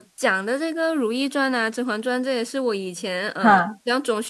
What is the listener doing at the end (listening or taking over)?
listening